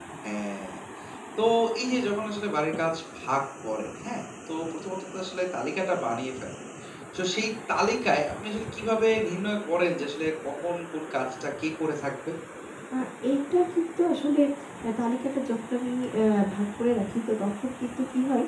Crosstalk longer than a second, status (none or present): none